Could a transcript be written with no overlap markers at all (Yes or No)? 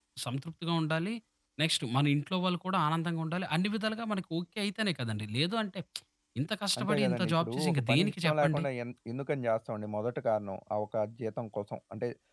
No